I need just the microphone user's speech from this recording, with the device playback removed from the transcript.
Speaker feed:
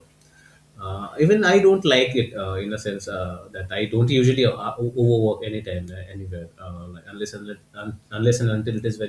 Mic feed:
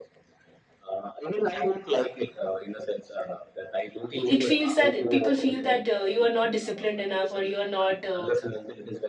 i- it feels that people feel that uh, you are not disciplined enough or you are not uh,

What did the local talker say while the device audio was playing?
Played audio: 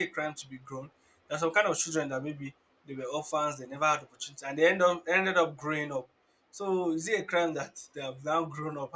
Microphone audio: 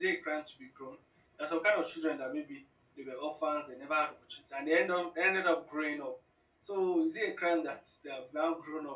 none

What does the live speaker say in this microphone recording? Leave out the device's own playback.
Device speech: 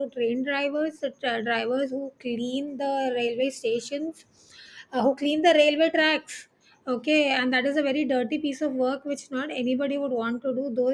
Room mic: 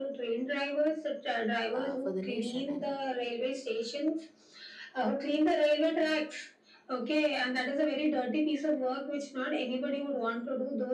uh, for the nation and

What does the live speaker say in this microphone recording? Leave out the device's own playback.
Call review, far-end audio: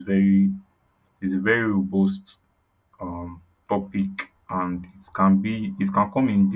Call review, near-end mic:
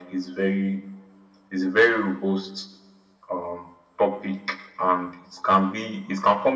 none

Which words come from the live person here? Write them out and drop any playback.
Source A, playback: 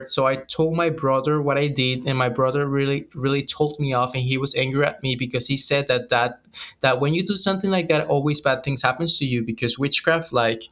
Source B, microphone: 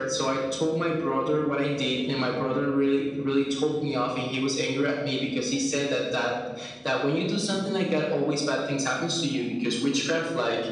none

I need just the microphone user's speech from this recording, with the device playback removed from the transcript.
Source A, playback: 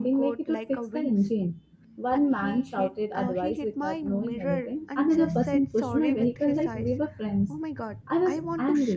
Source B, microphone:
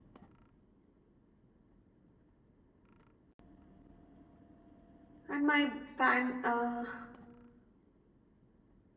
And my fan uh,

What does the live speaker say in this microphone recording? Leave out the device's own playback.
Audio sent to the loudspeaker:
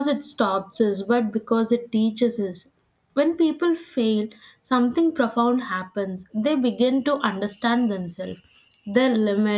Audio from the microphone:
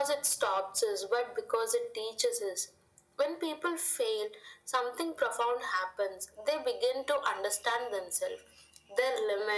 none

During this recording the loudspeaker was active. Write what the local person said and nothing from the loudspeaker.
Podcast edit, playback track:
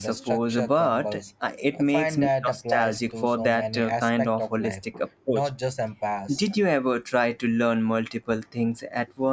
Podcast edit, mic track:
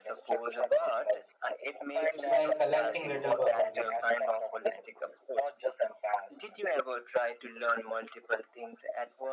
It's like collecting little puzzle pieces.

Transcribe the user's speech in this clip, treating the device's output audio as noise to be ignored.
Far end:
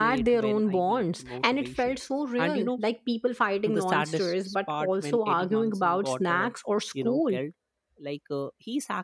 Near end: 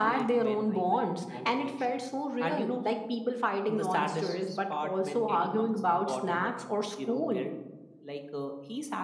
none

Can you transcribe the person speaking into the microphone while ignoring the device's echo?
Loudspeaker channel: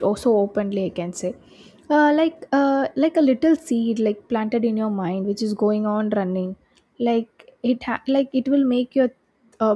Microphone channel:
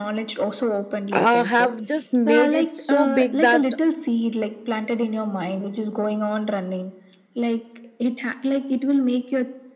uh, have just made it so big that

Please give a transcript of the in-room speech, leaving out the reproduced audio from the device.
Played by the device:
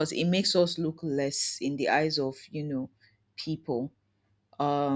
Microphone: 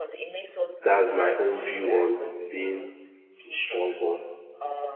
that's my own view on being a strong one.

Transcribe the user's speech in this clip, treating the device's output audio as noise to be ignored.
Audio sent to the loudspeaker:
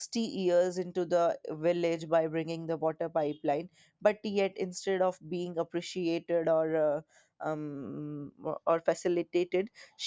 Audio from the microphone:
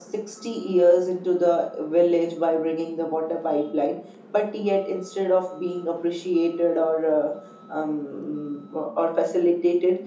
none

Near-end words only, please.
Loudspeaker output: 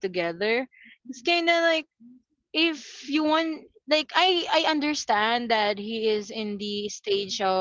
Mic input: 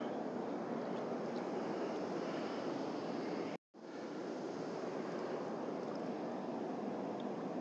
none

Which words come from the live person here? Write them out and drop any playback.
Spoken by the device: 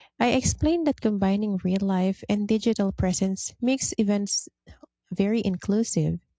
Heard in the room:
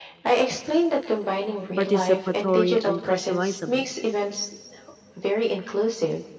participatory and customizable.

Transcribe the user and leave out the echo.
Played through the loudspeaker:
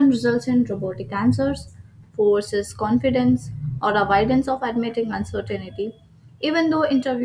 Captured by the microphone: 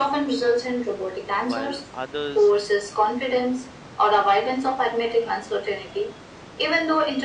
while others

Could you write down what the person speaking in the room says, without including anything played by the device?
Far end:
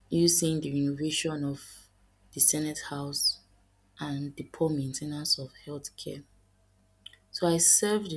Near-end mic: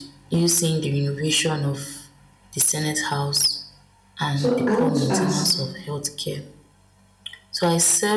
So I want to ask,

